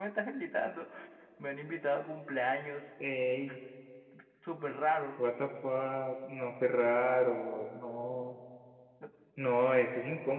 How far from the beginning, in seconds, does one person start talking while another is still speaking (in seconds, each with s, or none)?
none